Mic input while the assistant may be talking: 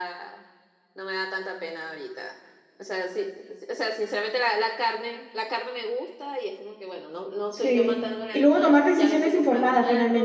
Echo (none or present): present